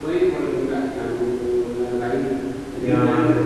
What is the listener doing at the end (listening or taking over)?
taking over